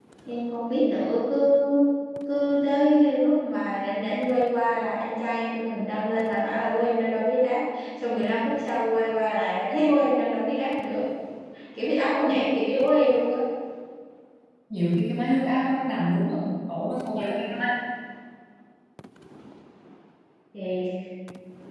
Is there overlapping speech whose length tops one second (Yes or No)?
No